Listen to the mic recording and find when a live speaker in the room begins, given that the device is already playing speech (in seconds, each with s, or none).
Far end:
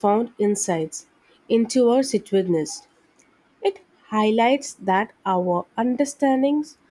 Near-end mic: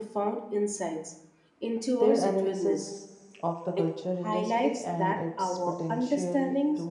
2.0 s